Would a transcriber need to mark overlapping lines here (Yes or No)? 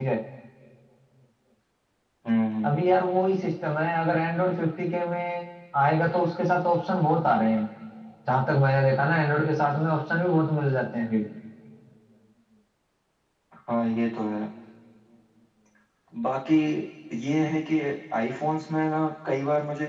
No